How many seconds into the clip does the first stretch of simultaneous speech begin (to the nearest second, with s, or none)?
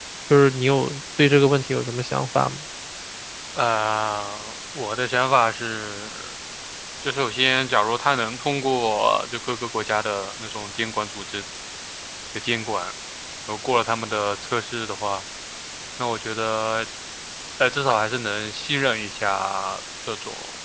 none